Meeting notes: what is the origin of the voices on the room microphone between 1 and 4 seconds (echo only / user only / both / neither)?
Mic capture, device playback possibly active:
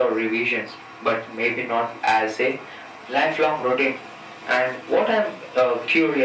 echo only